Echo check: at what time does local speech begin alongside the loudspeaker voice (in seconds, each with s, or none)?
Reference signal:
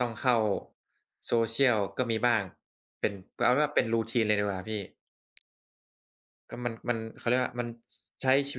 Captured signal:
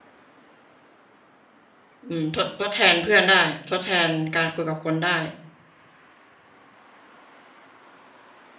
2.1 s